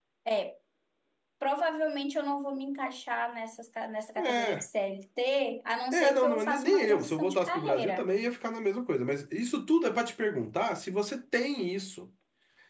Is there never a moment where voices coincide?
No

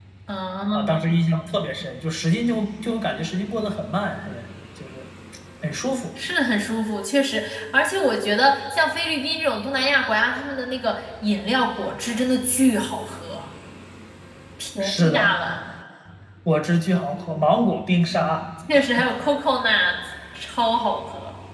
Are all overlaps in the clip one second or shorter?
Yes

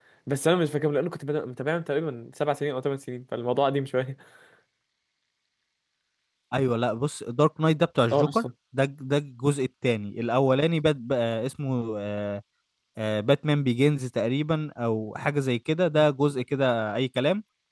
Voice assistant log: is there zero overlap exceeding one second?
Yes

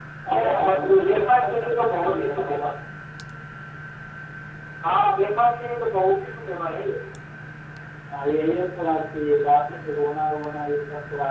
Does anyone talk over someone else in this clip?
Yes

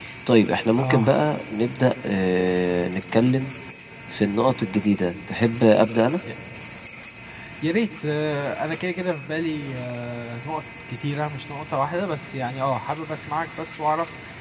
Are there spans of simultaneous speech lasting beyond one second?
No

